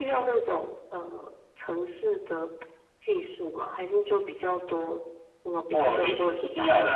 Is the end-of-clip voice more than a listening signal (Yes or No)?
Yes